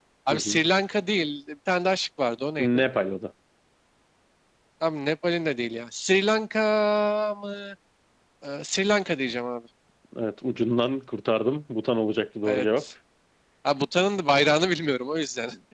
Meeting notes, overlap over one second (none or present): none